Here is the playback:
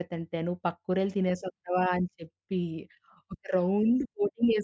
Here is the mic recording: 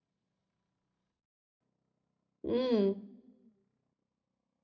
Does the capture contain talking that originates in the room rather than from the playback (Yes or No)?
Yes